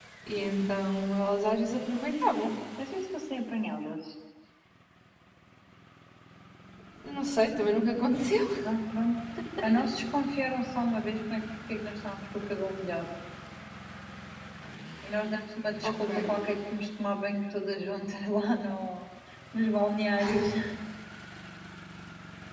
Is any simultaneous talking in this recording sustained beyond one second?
No

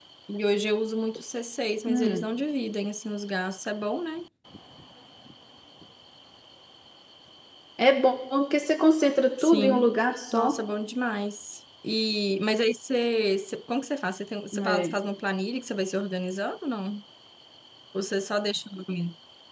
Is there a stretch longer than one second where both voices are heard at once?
No

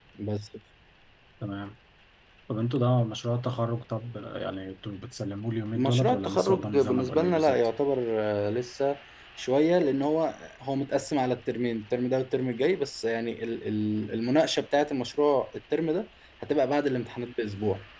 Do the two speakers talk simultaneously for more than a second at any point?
Yes, from 5.8 s

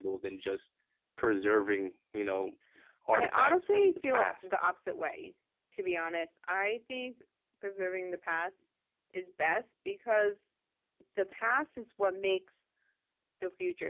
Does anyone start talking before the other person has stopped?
Yes, from 3.1 s

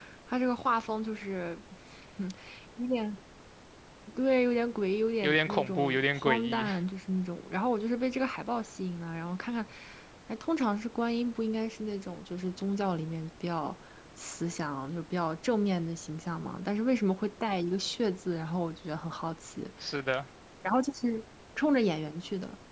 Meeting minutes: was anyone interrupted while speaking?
Yes, from 5.2 s

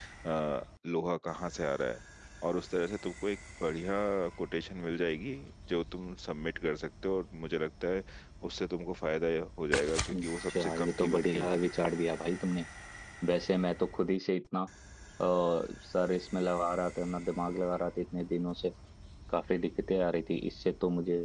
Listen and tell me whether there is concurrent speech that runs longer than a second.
Yes, from 10.1 s

